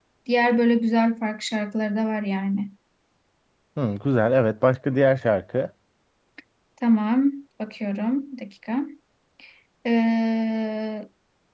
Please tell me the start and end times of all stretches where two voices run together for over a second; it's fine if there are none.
none

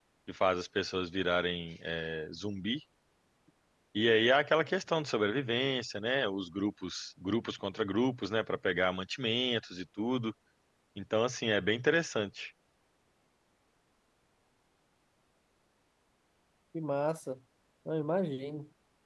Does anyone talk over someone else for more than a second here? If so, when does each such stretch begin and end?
none

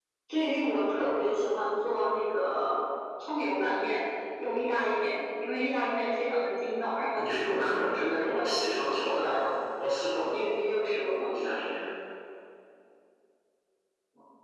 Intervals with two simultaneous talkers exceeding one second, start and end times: 7.2-9.5

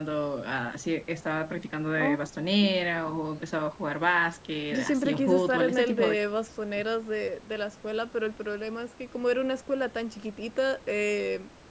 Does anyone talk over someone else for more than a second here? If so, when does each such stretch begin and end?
4.7-6.2

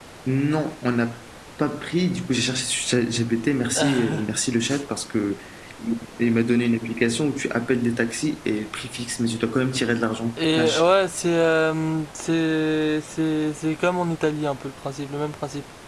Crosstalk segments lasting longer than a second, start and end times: none

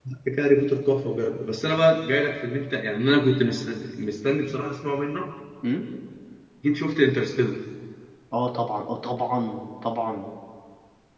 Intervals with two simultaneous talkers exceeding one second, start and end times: none

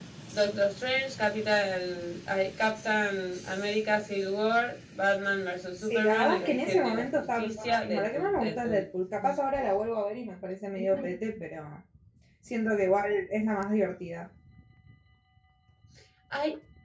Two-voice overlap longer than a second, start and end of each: 5.8-8.8

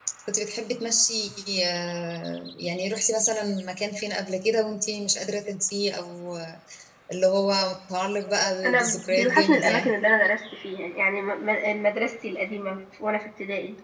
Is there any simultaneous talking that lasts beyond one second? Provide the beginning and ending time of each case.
8.6-9.9

